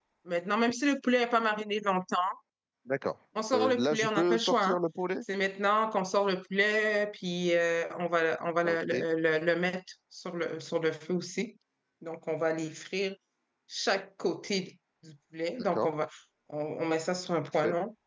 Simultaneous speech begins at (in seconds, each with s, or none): 3.5 s